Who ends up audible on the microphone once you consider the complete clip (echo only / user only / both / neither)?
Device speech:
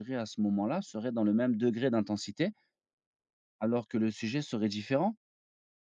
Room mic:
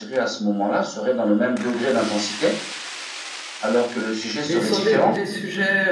both